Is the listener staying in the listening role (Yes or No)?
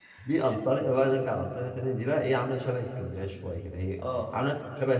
Yes